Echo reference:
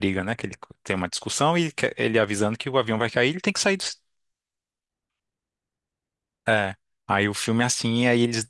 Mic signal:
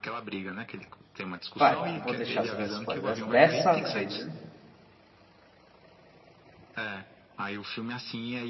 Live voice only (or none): Vai, eu vou deixar você dar spoiler dessa, dessa vez, viu?